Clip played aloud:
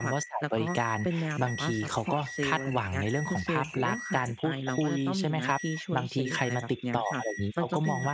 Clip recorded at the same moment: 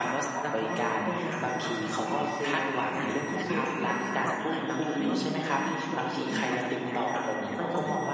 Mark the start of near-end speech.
2.9 s

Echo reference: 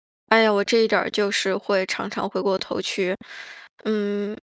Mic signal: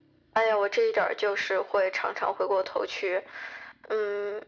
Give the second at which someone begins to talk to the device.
none

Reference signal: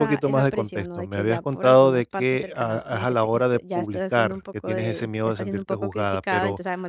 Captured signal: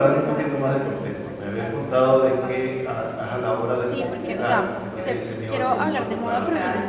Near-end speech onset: 3.8 s

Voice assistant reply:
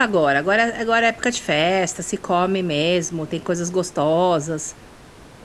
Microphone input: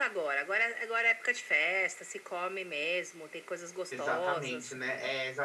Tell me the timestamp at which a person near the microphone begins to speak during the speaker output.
3.9 s

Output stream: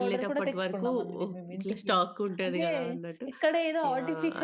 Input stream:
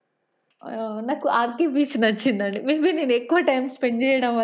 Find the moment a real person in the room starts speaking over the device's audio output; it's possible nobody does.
0.7 s

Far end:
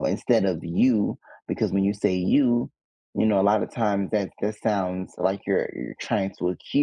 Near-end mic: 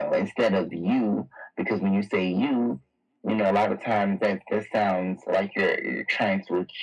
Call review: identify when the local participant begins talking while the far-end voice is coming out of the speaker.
none

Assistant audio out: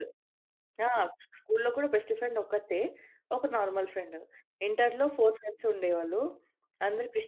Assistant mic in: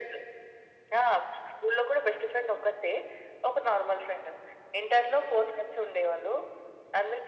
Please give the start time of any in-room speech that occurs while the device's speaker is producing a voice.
none

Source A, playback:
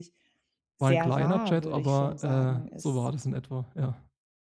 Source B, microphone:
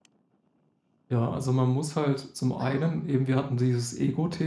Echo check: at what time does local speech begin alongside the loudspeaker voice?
1.1 s

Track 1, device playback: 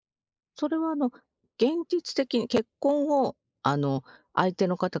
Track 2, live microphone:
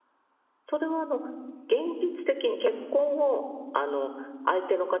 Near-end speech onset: none

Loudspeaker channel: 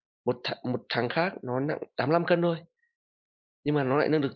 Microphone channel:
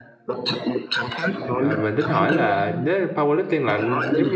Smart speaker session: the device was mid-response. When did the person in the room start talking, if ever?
1.5 s

